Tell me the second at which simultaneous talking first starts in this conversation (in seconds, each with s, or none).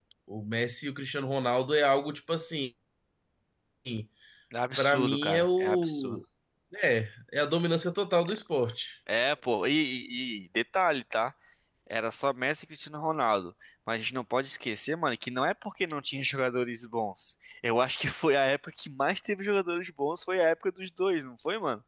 4.8 s